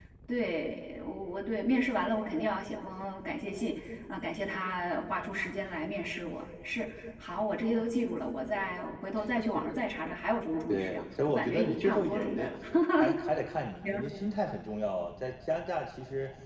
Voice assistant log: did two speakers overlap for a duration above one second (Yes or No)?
Yes